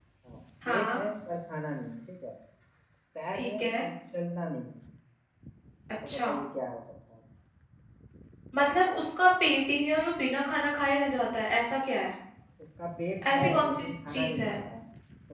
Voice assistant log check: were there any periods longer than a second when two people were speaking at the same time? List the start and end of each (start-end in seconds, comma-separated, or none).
13.3-14.5